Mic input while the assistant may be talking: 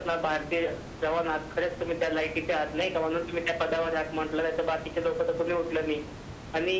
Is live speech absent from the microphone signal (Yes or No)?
Yes